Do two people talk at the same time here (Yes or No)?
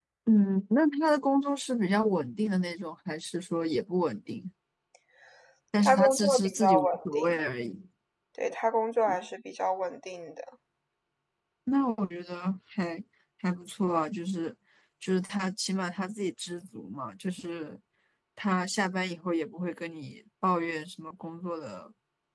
Yes